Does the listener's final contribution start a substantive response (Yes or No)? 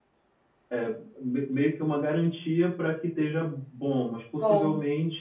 No